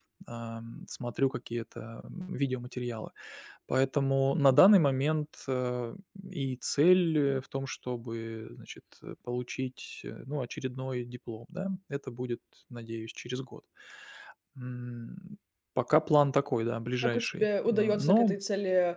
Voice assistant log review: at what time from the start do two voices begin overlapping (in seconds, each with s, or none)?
17.0 s